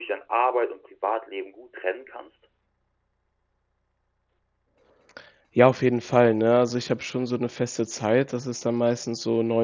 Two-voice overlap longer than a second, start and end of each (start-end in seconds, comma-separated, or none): none